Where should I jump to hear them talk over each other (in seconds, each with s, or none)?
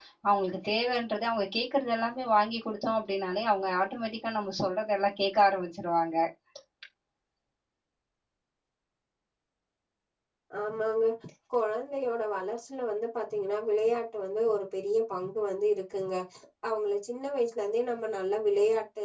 none